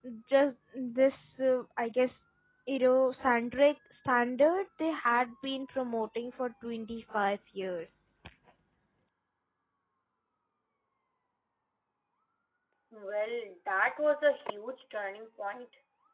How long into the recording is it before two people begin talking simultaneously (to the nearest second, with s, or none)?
none